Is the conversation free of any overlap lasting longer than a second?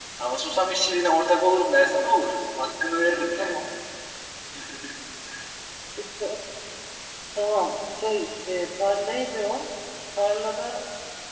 Yes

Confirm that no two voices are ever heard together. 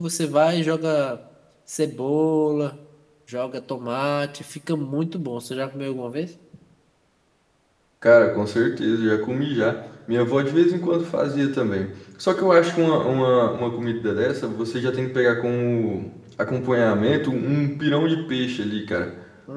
Yes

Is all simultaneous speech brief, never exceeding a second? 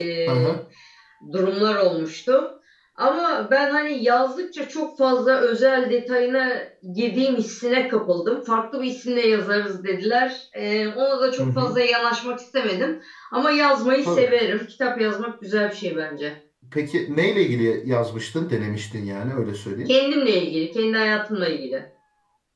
Yes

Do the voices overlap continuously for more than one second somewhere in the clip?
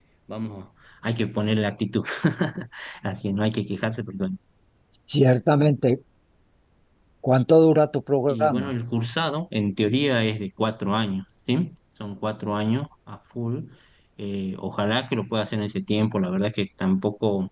No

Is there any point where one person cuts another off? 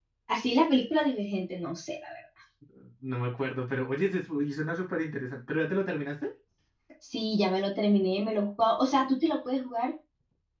No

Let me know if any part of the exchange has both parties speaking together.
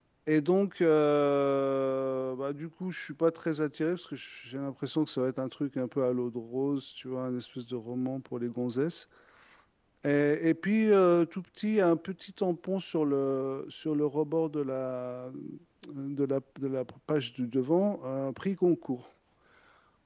No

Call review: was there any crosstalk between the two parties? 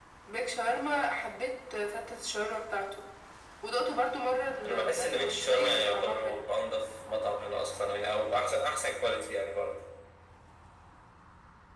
Yes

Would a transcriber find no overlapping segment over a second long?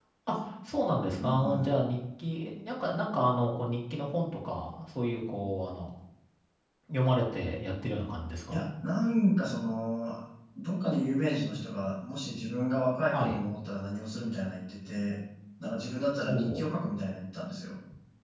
Yes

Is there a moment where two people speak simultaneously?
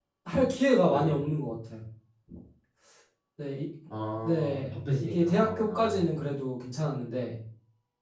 Yes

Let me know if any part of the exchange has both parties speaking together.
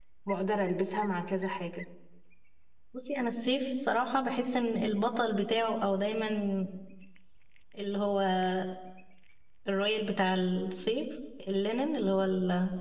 No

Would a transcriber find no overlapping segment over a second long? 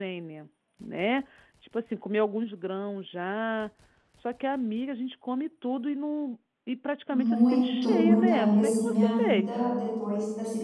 No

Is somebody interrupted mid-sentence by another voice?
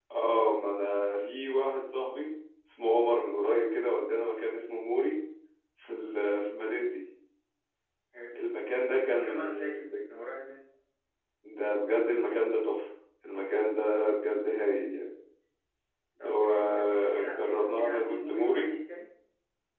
Yes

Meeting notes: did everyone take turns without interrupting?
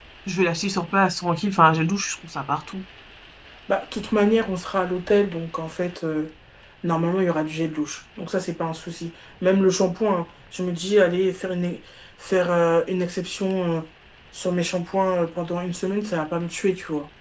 Yes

